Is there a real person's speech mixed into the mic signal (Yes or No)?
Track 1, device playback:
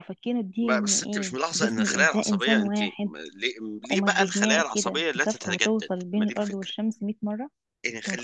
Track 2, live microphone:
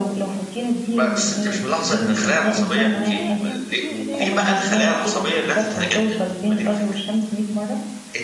Yes